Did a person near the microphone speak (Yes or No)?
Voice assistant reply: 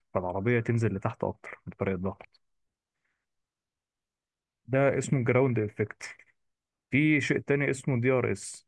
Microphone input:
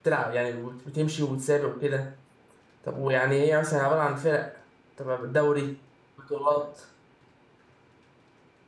Yes